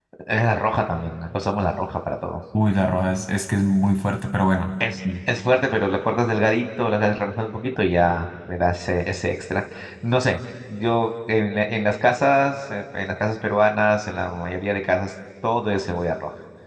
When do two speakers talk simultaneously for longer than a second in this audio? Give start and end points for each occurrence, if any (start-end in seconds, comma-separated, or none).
none